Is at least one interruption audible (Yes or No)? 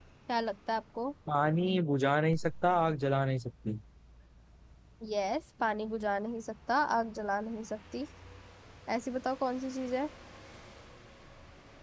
No